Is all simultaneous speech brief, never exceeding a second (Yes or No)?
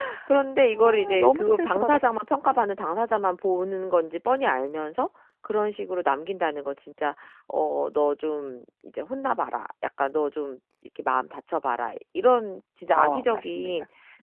No